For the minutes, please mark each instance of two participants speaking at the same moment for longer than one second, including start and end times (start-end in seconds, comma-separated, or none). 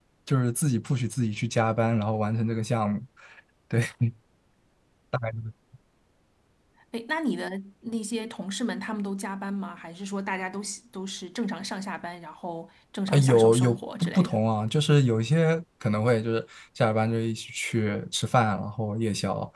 13.1-14.3